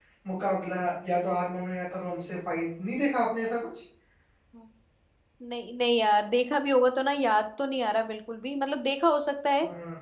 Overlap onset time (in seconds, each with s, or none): none